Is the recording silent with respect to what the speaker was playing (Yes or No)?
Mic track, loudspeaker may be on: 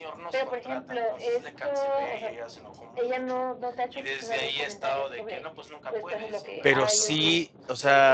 No